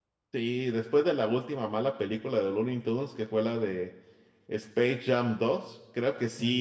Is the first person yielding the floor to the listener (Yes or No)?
No